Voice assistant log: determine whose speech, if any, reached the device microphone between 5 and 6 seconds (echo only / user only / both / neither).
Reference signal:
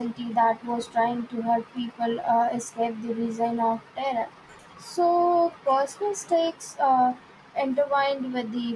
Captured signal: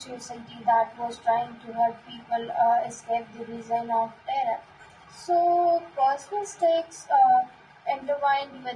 echo only